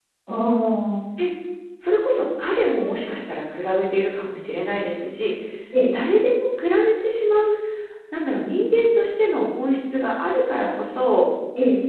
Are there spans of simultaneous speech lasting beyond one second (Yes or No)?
No